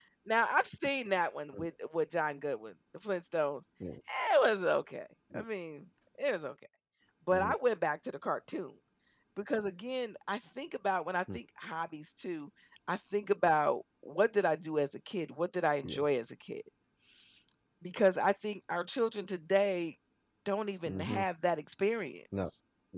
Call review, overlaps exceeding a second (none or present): none